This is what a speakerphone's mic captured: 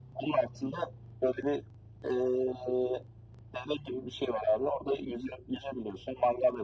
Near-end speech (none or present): none